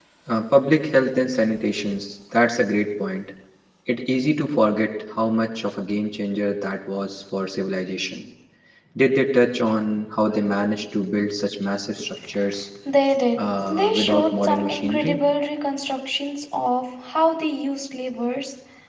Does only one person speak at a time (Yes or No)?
No